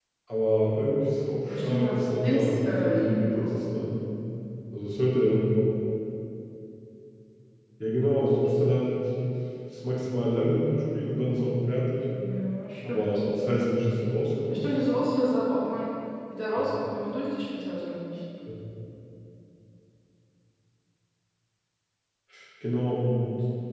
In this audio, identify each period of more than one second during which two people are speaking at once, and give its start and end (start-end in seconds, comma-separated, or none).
1.5-3.5